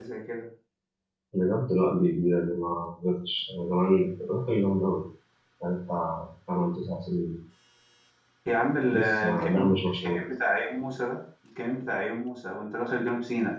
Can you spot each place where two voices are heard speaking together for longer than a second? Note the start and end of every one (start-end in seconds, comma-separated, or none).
8.9-10.2